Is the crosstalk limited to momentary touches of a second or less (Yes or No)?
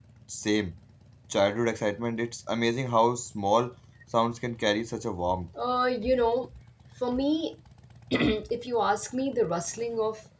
Yes